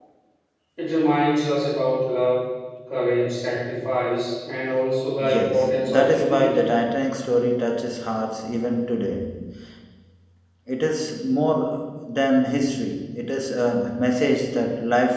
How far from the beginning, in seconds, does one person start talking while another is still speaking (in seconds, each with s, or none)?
5.2 s